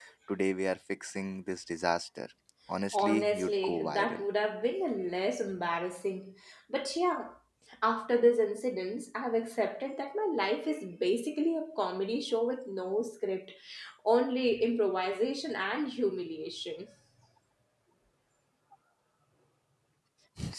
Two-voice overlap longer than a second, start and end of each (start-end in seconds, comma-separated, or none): 2.9-4.2